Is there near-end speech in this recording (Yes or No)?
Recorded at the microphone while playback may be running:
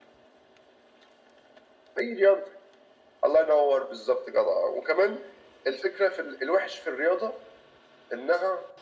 No